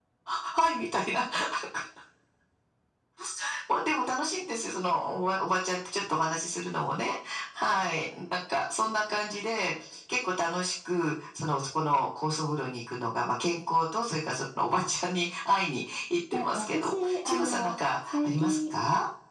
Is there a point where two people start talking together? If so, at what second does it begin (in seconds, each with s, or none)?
16.3 s